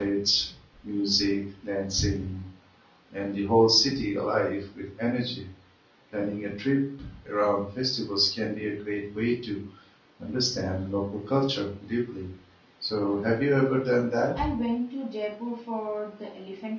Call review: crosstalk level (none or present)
none